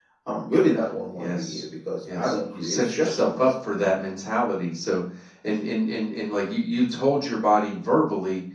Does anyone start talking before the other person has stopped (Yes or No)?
Yes